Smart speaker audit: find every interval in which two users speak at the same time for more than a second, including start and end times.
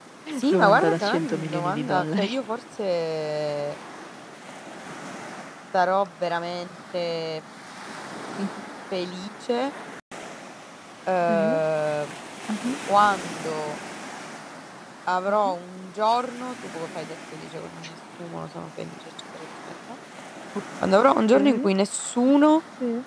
0.5-2.3

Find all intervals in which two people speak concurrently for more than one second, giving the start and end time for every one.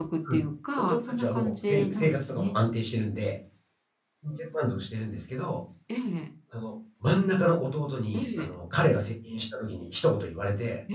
0.8-2.5

